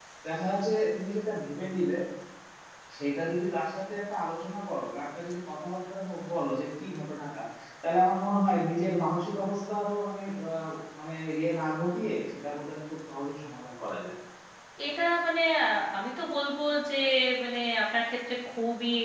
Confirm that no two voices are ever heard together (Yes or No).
Yes